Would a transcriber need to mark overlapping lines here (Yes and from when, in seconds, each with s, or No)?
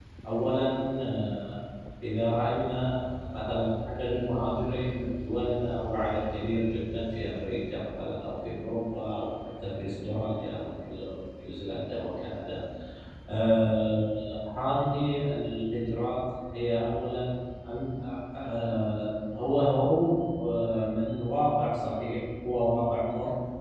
No